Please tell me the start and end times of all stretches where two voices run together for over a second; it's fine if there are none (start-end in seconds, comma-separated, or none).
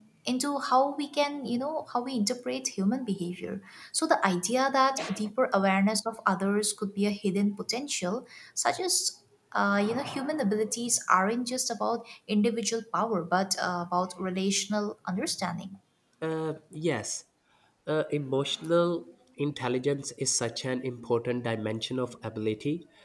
none